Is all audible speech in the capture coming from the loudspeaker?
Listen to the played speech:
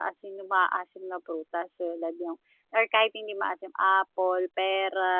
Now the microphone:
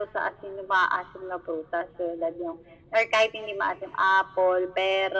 Yes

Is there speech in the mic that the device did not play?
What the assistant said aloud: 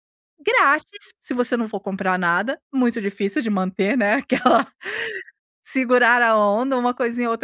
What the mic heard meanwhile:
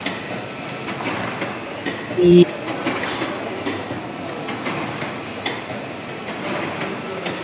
Yes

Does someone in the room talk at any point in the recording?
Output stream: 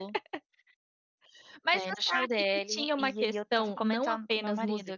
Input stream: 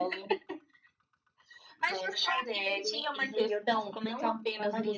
No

